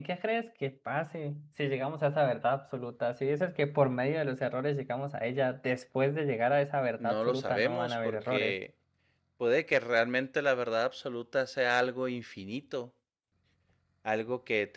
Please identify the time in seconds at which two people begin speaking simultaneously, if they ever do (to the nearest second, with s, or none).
7 s